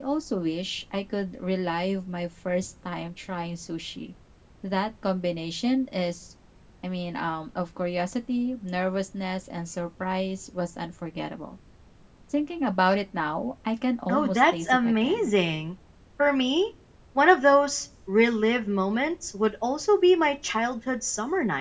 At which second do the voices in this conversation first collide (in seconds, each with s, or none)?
14.1 s